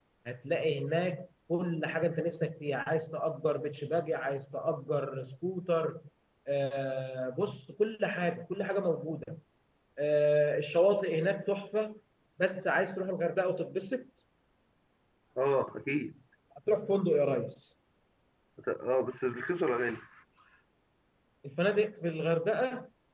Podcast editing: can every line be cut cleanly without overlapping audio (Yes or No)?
Yes